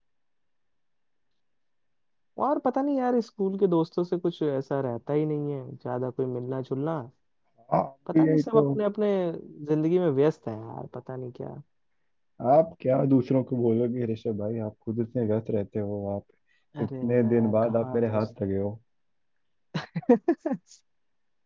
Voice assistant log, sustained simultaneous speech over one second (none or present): present